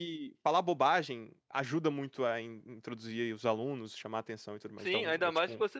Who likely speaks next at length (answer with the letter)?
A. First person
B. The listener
B